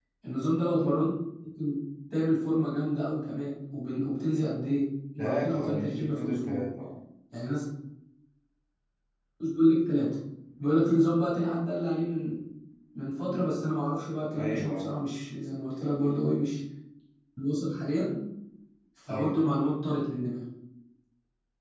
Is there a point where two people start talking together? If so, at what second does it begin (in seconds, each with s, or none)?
5.2 s